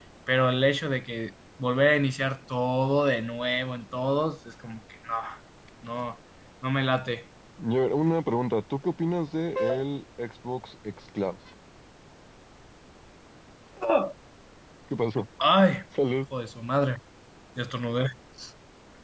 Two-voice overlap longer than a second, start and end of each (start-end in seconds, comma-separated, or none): none